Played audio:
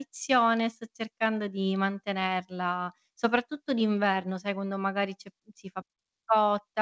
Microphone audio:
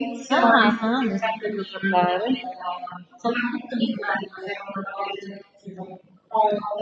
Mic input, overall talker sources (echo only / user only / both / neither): both